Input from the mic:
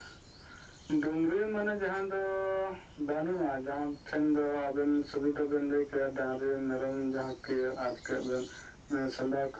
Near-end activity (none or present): none